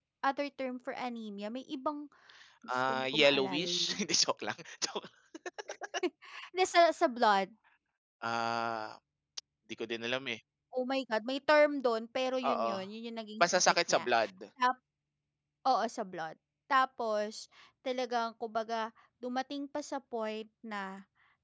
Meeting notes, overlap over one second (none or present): present